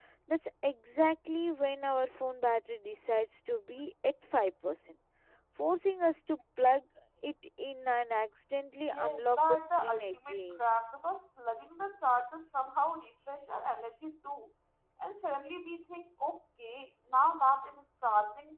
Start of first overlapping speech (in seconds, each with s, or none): 8.9 s